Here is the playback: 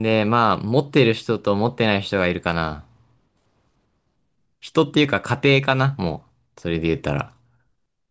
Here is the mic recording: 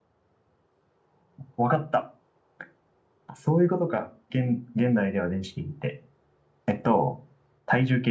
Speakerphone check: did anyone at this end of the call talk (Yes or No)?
Yes